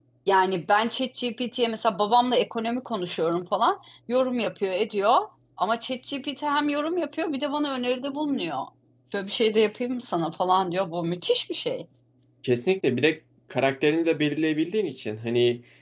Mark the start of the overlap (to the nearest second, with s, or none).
none